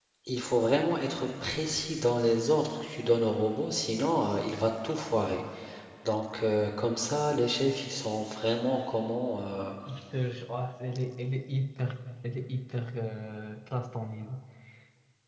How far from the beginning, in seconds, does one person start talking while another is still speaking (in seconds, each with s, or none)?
none